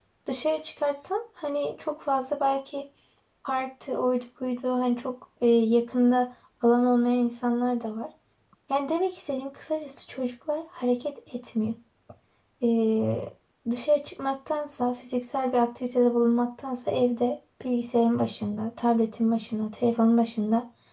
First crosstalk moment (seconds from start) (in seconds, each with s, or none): none